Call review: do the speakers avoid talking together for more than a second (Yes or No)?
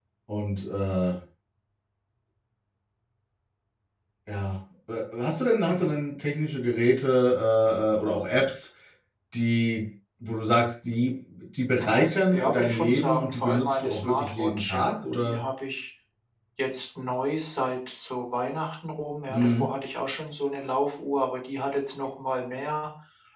No